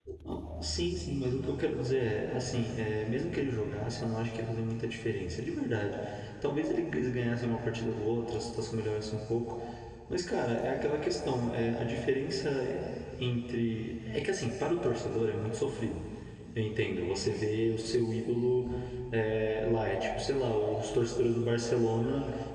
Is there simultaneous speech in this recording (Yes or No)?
No